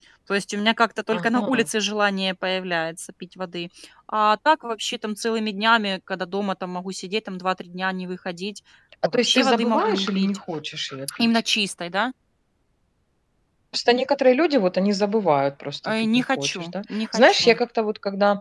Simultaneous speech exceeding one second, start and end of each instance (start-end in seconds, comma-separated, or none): 9.0-10.4, 15.8-17.6